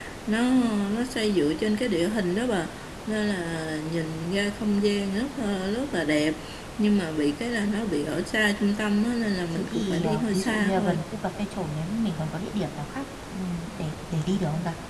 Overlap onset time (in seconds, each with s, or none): 9.5 s